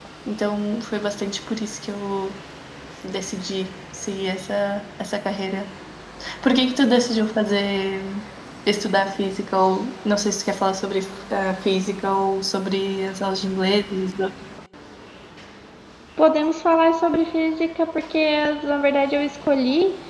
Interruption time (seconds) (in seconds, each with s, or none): none